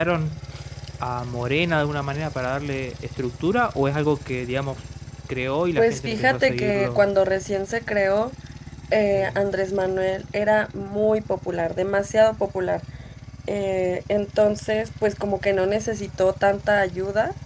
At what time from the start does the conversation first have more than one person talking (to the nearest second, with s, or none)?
6 s